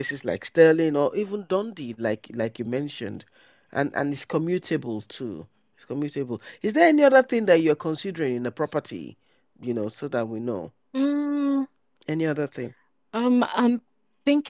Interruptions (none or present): none